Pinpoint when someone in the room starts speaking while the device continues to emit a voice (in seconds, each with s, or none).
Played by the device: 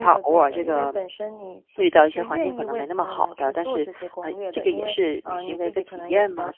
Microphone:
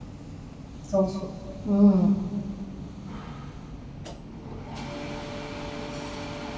0.8 s